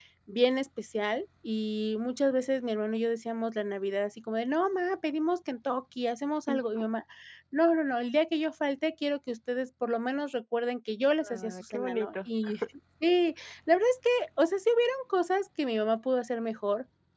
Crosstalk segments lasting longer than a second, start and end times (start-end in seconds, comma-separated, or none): 11.2-12.5